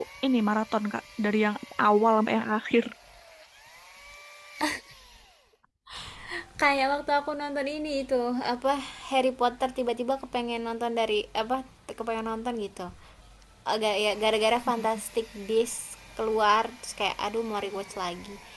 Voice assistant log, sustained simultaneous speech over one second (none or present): none